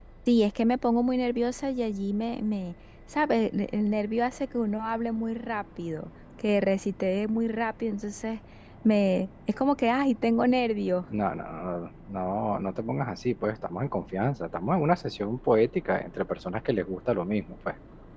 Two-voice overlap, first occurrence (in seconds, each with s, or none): none